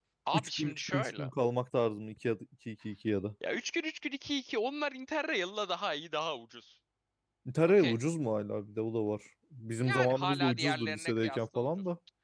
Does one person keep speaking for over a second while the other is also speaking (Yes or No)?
Yes